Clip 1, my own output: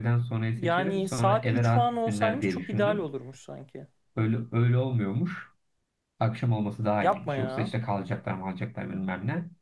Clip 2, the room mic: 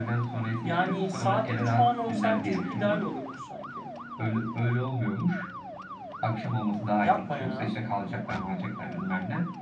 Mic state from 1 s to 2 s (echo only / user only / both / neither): echo only